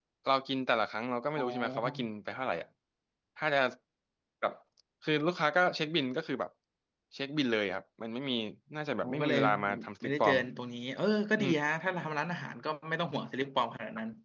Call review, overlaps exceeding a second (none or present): present